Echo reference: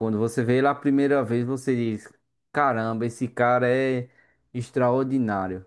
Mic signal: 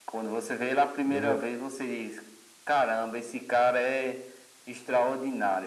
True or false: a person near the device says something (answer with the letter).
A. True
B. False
A